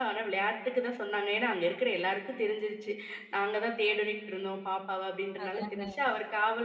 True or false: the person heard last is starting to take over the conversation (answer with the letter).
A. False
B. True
A